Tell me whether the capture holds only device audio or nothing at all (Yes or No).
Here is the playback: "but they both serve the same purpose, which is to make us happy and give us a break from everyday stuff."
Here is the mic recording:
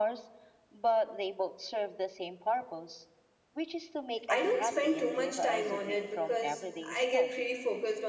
No